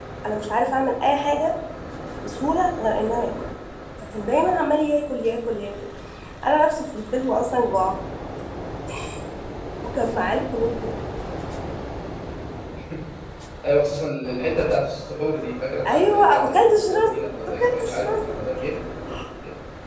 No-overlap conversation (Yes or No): No